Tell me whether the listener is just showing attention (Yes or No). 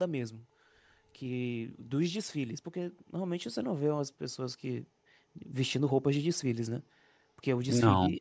Yes